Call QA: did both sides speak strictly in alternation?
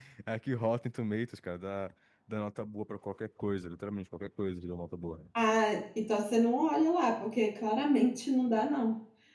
Yes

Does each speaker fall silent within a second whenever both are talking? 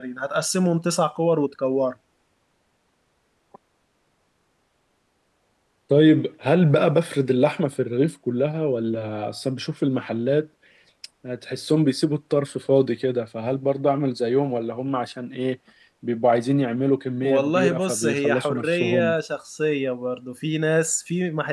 No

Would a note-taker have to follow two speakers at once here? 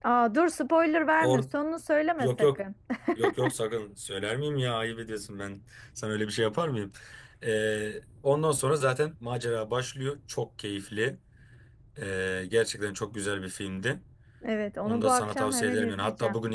Yes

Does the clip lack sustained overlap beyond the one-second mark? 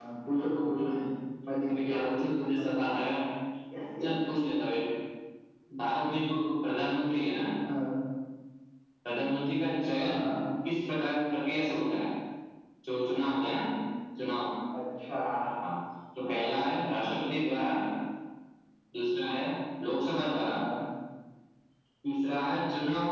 No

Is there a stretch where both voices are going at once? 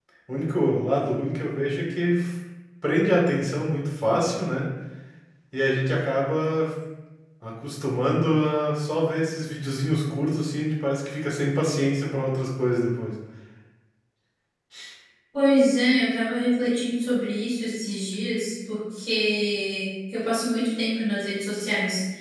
No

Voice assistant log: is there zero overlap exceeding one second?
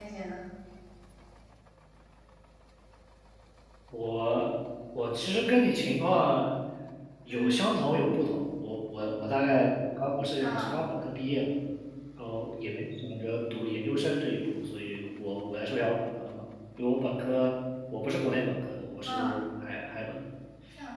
Yes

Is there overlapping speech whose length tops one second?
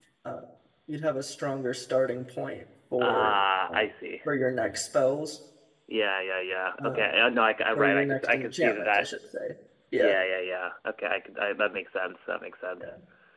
Yes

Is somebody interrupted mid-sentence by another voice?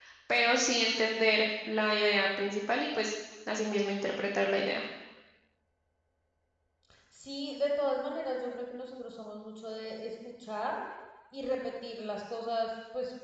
No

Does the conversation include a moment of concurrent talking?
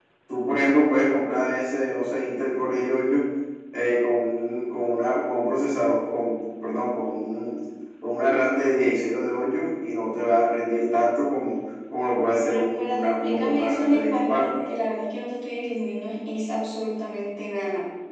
Yes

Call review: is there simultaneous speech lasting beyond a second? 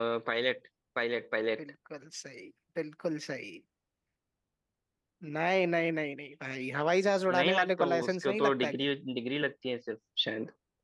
Yes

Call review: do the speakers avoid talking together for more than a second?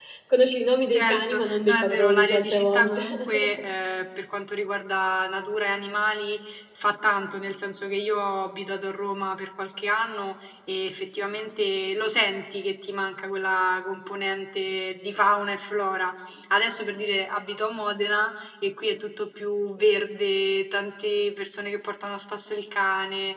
No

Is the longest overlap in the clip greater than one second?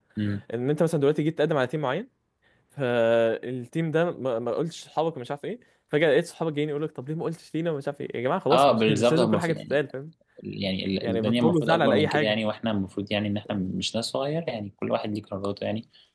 Yes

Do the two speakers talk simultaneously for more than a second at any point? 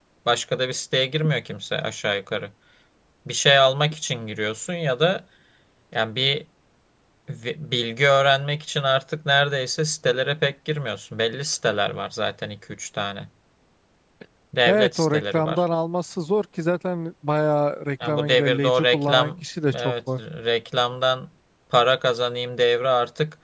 Yes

